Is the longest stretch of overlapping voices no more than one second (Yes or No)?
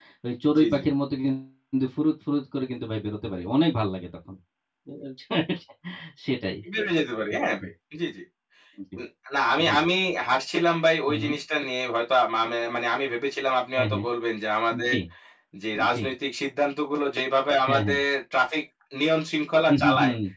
Yes